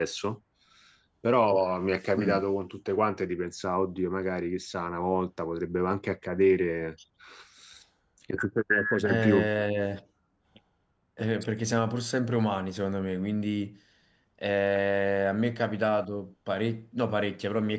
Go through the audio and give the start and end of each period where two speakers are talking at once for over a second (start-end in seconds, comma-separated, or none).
none